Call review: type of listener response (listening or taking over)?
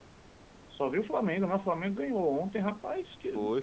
listening